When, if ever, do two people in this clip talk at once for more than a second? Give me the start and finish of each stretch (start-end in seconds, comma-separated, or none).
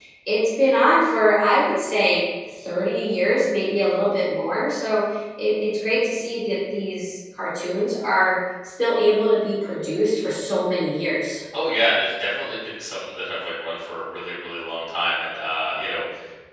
none